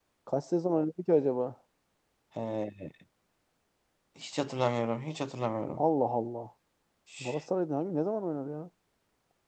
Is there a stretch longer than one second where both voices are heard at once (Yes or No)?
No